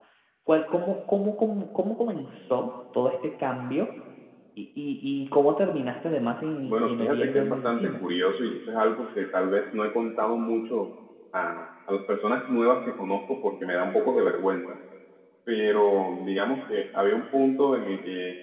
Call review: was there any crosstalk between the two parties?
Yes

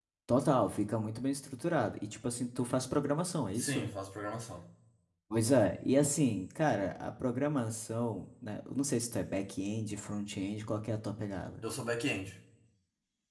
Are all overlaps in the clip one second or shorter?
Yes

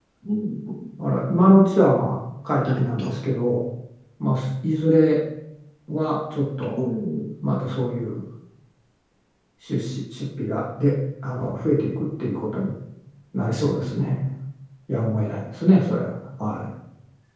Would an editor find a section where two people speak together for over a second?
No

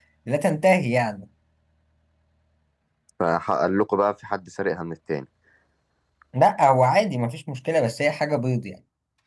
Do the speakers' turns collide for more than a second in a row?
No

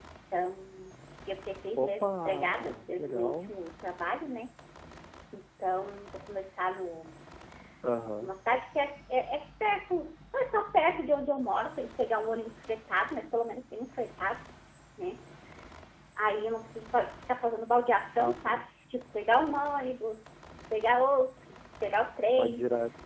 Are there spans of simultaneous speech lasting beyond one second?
Yes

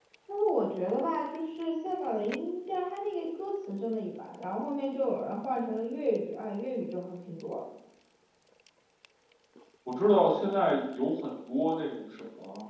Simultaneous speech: No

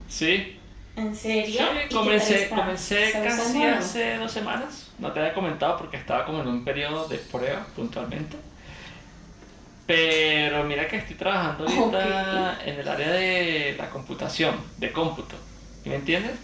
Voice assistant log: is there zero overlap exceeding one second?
No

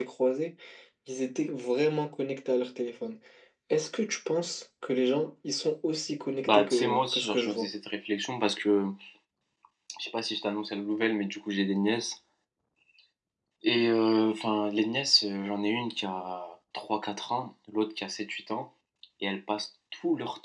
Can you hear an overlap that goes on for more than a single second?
Yes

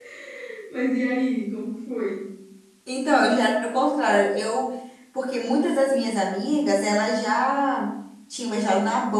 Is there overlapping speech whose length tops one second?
No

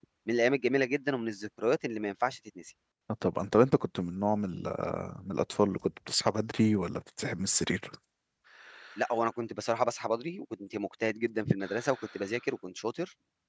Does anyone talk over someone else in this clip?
No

